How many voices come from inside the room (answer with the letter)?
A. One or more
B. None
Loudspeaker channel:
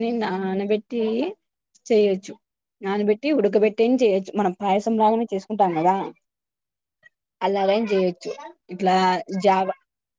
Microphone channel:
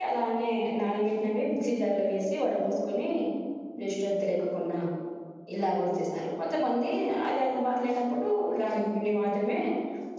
A